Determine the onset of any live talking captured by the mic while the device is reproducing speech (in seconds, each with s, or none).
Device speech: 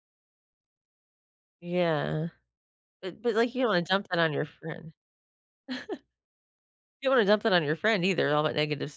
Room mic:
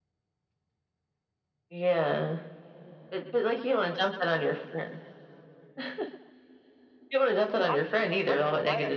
7.5 s